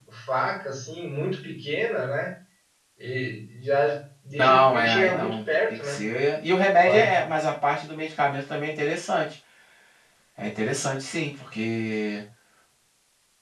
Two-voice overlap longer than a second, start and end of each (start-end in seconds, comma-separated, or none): 4.3-6.1